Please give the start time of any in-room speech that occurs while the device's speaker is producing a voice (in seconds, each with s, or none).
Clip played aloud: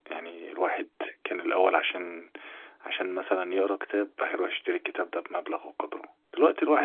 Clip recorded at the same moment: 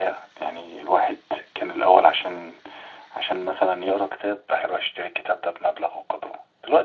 none